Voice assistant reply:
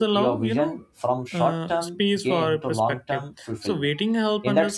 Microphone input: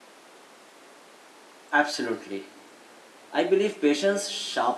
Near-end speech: present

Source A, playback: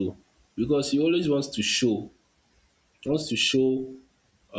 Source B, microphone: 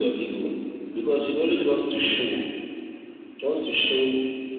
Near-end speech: none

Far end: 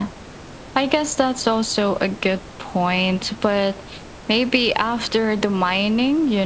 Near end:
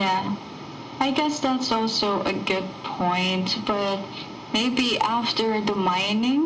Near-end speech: none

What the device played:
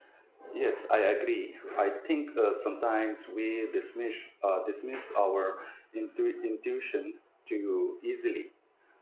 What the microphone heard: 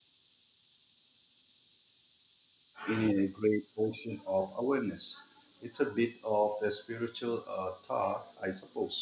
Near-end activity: present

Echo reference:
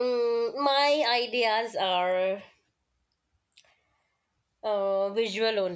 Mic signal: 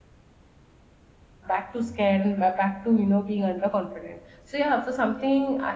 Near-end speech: present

